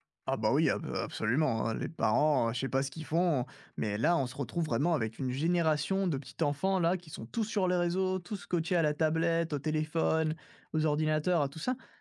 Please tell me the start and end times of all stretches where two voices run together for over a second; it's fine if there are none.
none

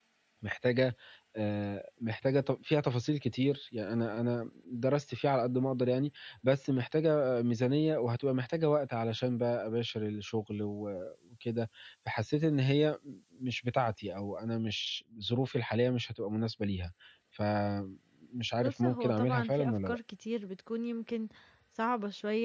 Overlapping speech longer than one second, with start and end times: 18.6-20.0

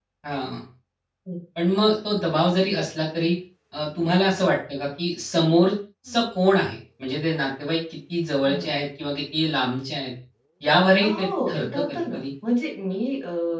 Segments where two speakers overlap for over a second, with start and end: 11.0-12.2

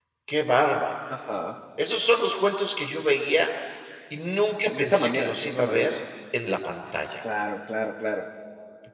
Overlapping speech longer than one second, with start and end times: 4.6-5.9

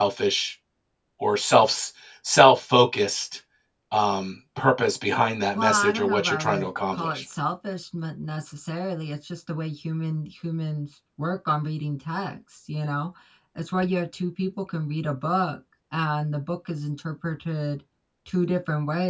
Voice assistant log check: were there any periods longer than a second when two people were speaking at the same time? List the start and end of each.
5.5-7.2

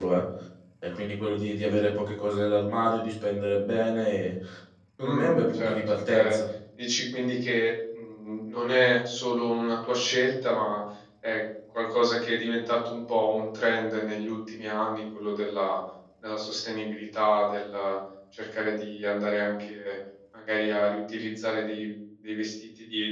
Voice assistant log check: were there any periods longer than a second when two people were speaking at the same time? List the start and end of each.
5.0-6.4

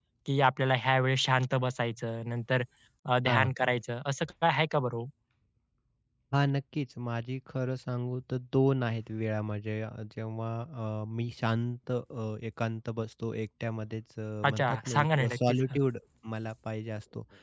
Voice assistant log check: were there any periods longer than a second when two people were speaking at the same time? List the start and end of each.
14.5-15.8

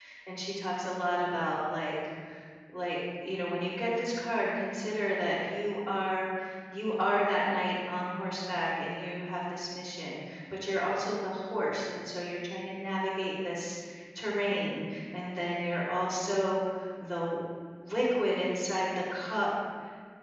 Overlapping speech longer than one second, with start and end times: none

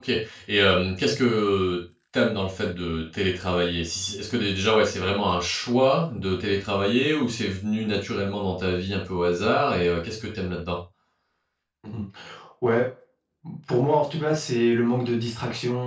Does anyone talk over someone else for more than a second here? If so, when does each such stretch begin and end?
none

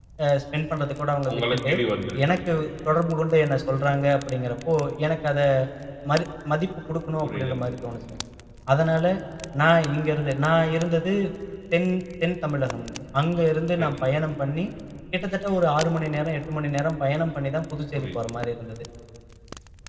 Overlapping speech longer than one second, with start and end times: none

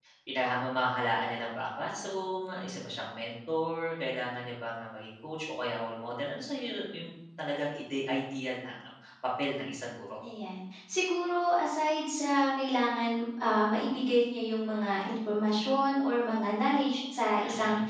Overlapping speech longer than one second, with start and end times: none

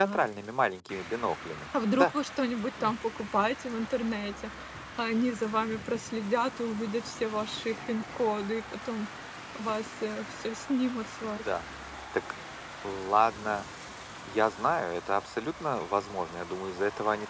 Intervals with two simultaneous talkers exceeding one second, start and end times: none

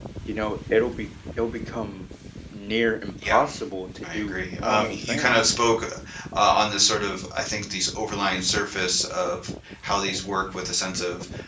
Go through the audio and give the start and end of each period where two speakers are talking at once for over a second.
4.0-5.6

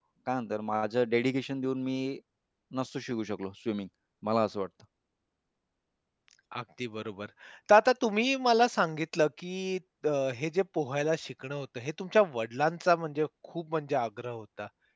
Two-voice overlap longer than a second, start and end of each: none

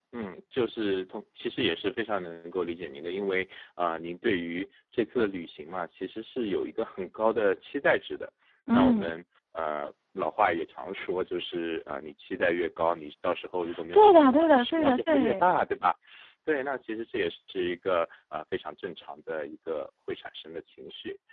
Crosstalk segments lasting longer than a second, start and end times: 13.9-15.5

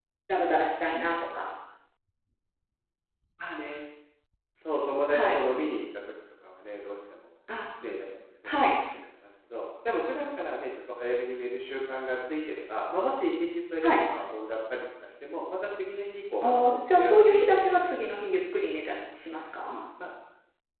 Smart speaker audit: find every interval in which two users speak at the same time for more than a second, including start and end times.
16.4-17.8

